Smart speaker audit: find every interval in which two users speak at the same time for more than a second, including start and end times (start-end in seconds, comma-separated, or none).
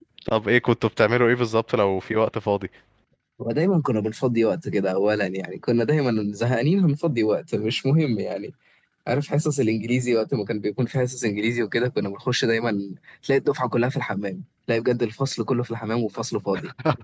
none